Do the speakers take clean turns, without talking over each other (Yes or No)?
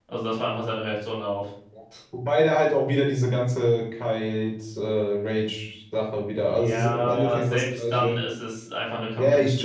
No